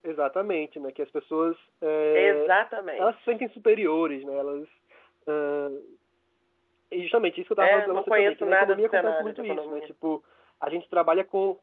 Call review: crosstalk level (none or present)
present